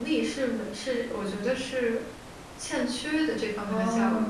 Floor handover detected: Yes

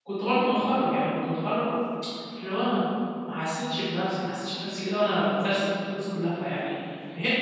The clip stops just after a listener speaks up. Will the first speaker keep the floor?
Yes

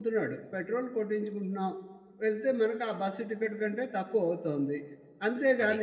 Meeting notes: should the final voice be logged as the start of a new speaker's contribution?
No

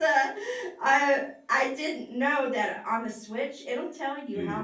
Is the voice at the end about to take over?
No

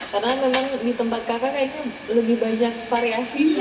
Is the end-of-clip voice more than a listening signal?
Yes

